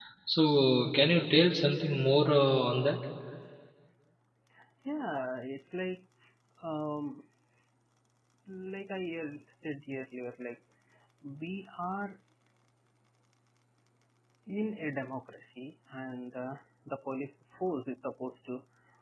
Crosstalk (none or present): none